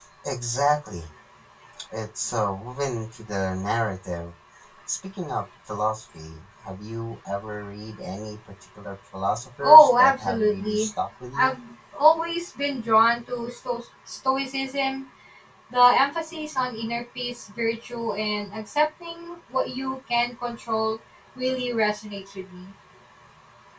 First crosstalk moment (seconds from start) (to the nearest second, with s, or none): 10 s